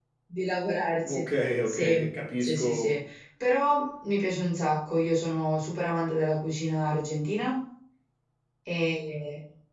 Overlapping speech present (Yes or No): Yes